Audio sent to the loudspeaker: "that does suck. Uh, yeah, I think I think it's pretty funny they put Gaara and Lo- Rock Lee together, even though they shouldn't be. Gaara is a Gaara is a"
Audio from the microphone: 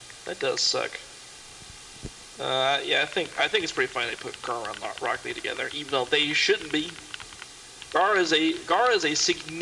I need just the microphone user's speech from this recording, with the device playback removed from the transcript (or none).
none